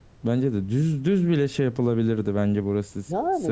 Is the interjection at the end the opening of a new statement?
No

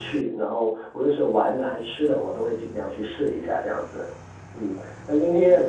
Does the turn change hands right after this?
No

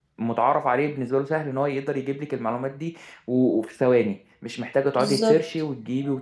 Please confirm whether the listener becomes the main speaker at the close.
No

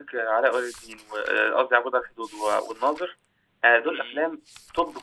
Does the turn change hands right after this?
No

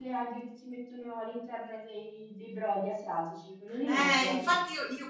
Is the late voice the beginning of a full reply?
Yes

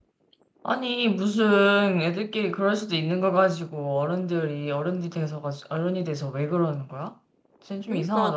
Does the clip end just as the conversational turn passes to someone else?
Yes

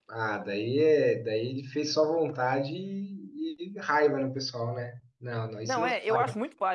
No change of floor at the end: No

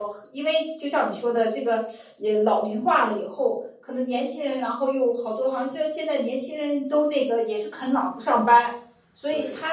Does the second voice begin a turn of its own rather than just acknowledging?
No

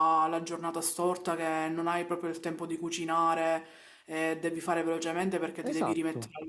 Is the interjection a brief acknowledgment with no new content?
Yes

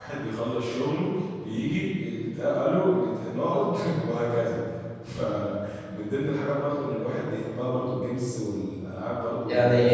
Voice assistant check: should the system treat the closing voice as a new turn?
Yes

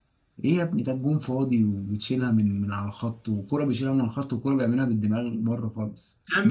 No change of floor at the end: No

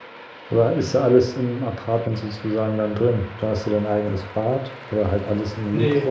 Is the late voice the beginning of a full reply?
Yes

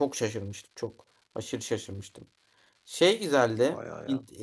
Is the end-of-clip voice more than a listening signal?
No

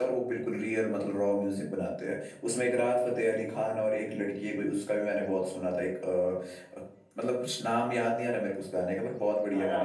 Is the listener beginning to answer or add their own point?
Yes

